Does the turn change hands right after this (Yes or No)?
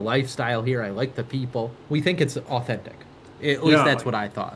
Yes